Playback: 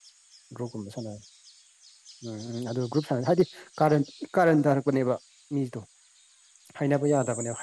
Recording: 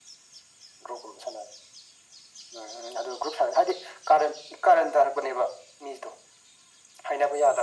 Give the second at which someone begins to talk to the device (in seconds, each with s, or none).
none